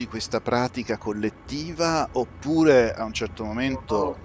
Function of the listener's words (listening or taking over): listening